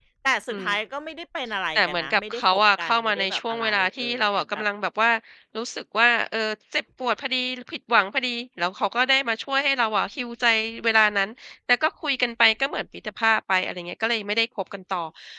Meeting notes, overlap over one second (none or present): present